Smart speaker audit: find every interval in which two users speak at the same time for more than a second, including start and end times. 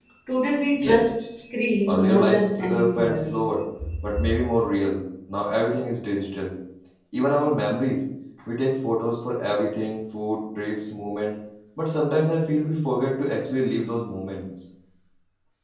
1.9-3.5

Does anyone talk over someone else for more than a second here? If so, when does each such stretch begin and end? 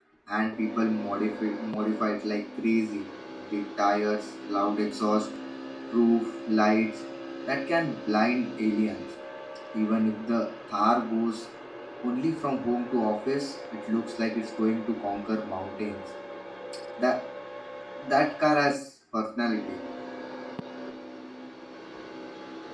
none

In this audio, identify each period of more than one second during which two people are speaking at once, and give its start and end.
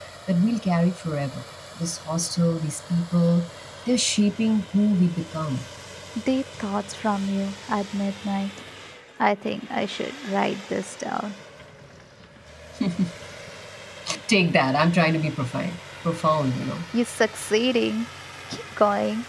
none

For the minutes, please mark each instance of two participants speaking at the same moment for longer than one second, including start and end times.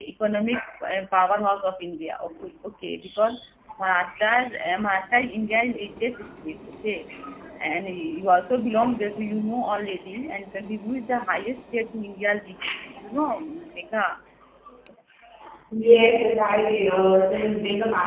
none

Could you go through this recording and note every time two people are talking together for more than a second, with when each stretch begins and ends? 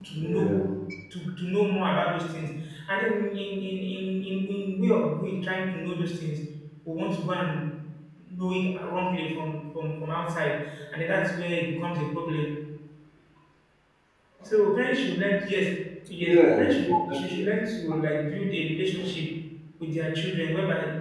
16.2-17.4

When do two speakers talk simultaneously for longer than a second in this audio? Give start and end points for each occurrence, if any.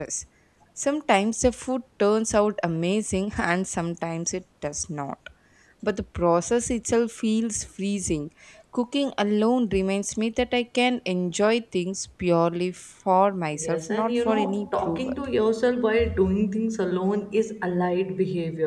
13.5-15.1

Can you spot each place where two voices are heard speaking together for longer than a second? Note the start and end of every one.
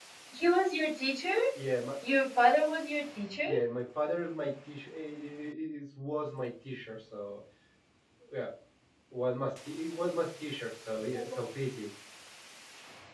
none

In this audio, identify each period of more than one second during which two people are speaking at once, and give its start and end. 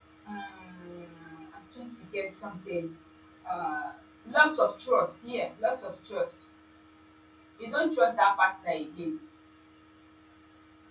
none

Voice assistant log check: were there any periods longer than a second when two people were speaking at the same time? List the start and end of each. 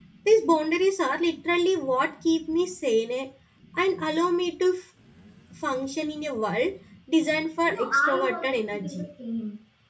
7.7-9.1

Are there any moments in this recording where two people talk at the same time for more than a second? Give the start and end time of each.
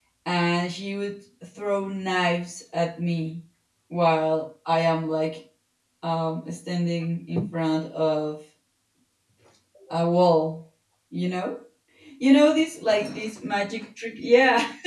none

